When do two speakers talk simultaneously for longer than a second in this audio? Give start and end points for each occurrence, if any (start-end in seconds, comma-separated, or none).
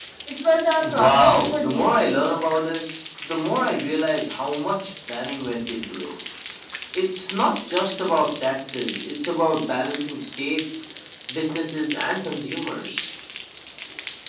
0.8-2.2